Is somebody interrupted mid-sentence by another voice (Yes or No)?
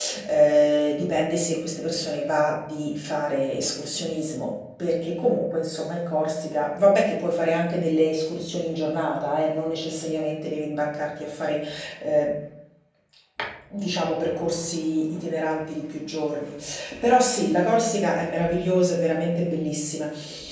No